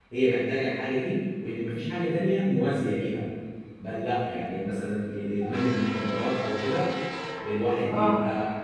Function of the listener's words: listening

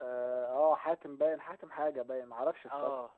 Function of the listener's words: taking over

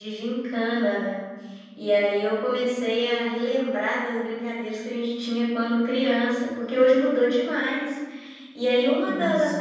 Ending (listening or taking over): listening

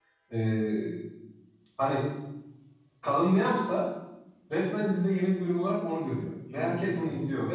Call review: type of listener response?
listening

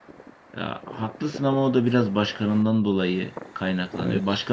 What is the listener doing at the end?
listening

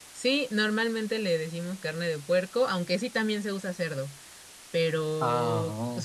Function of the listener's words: listening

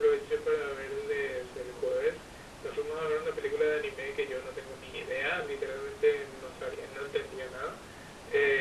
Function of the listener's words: listening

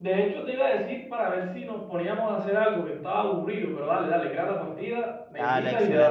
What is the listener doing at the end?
taking over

